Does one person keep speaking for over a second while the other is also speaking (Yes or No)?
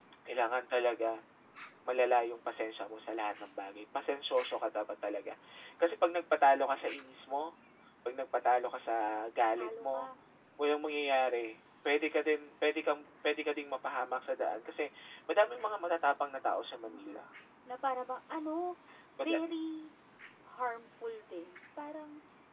No